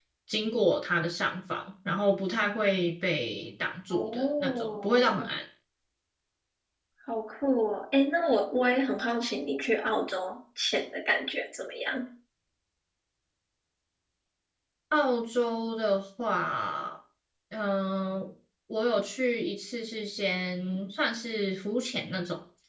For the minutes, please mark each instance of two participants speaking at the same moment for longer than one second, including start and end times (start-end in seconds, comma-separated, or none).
3.9-5.3